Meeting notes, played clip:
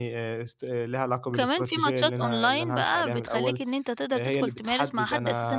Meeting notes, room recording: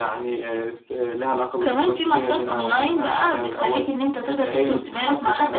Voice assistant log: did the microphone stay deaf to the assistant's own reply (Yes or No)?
No